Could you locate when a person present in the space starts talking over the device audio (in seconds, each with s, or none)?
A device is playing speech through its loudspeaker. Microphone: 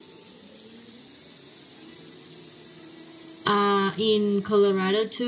3.4 s